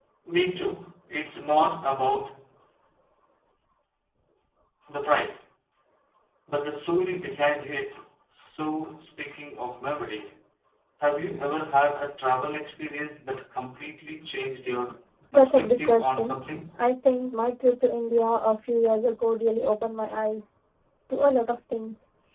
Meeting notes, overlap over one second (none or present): present